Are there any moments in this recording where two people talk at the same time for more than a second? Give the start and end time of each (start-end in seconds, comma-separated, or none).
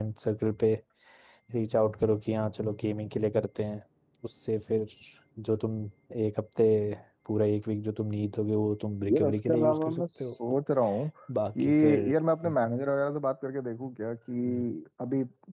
9.1-10.3